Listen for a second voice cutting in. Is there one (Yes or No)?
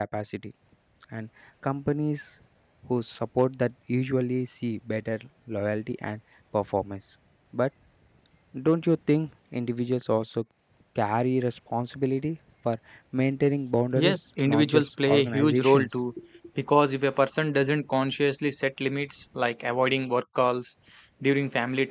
Yes